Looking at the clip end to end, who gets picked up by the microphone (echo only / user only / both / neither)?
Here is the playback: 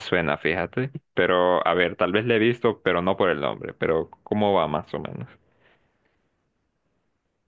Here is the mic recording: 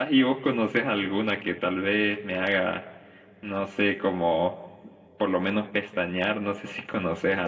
user only